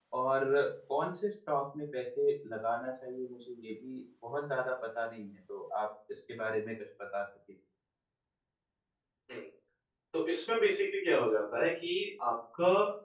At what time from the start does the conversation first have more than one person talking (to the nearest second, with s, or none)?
none